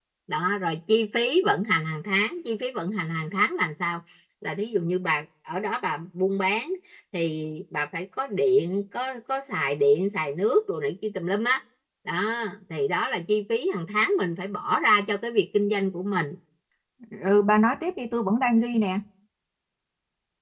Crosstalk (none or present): none